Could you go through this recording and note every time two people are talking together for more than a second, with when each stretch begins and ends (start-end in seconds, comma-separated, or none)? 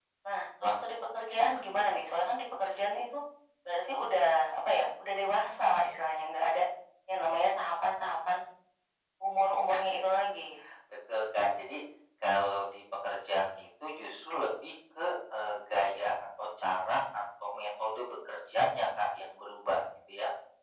none